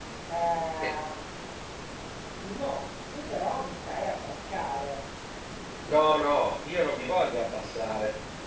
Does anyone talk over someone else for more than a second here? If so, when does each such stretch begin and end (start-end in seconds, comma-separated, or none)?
none